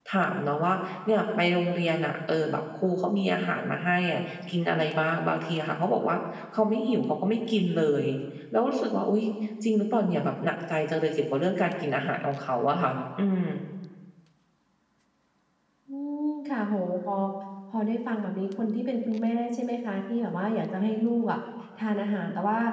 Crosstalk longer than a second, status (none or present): none